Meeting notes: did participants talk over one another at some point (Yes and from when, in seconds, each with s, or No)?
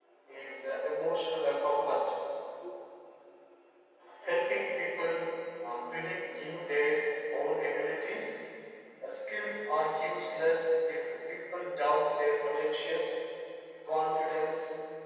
No